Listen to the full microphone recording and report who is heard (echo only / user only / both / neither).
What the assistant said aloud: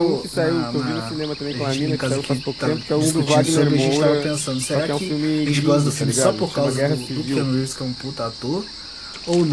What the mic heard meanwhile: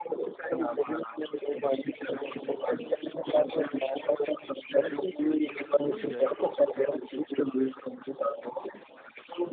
both